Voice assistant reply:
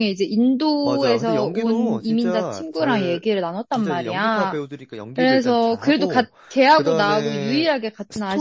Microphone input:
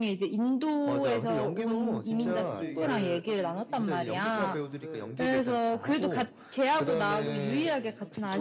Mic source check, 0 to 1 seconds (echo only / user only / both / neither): echo only